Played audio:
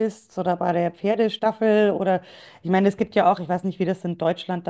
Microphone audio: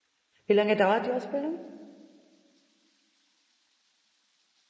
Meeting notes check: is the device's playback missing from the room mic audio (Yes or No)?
Yes